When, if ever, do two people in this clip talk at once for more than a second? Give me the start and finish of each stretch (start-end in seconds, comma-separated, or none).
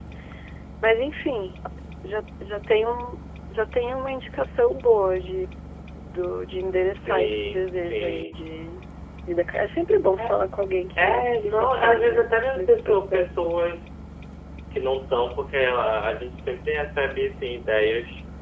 6.9-8.3, 11.0-13.4